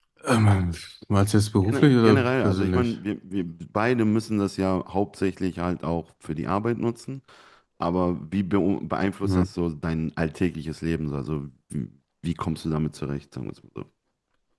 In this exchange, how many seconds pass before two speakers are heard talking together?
1.6 s

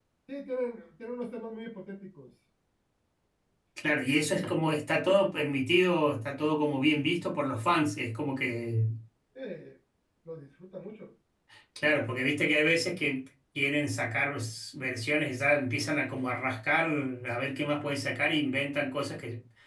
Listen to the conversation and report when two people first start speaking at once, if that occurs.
none

